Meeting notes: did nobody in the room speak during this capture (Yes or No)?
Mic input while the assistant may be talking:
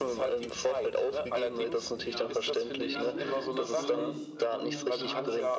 No